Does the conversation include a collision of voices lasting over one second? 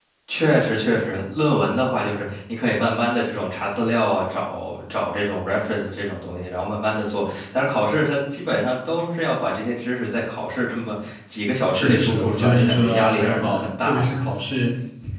Yes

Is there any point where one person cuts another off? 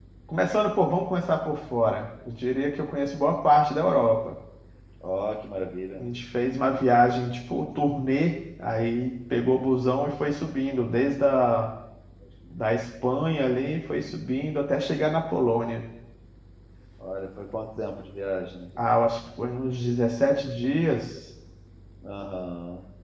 No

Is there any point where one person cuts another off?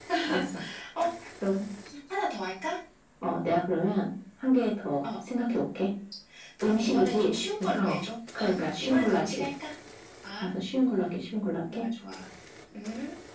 Yes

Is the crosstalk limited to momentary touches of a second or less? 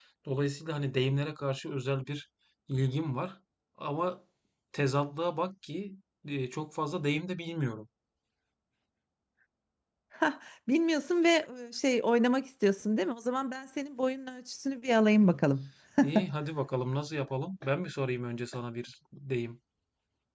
Yes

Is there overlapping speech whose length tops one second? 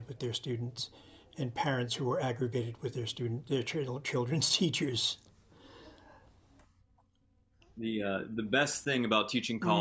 No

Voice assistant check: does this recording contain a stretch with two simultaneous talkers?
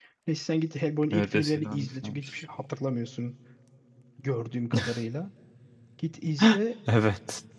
Yes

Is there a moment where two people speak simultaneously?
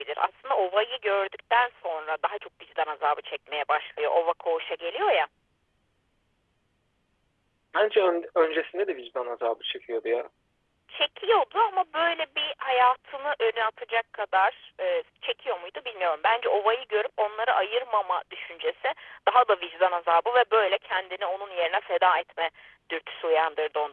No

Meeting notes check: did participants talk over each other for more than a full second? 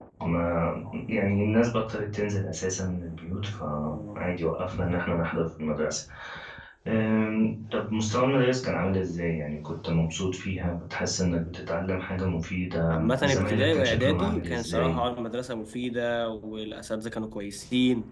Yes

